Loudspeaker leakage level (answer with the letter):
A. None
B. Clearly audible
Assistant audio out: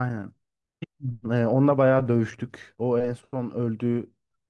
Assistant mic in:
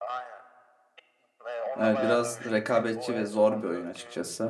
B